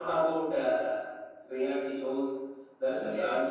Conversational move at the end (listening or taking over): listening